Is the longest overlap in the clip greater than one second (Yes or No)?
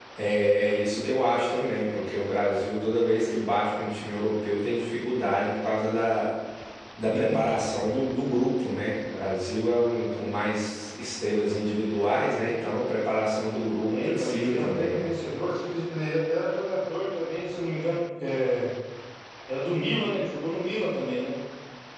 Yes